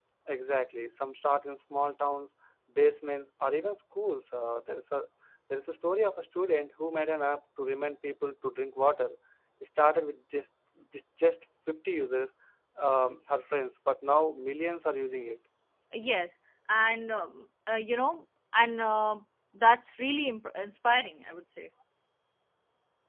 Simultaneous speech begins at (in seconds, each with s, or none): none